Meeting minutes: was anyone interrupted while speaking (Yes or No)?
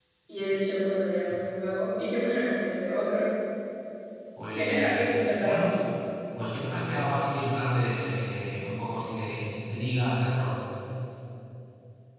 Yes